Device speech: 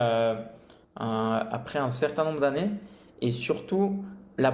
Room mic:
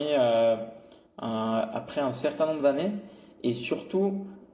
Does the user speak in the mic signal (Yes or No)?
No